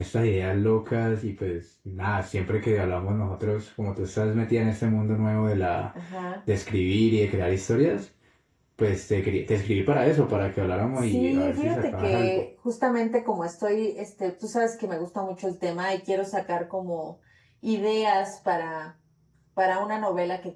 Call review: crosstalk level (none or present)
present